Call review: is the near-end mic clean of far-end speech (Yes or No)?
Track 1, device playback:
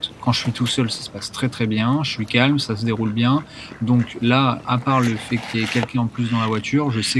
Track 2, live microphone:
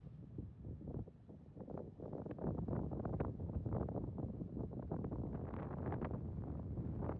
Yes